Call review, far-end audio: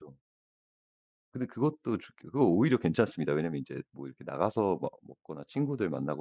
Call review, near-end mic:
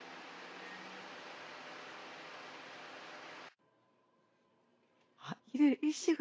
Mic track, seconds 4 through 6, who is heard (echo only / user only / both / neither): user only